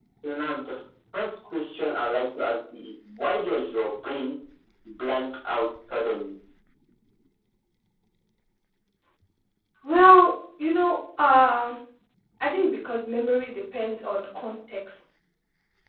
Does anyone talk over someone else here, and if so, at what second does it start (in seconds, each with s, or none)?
none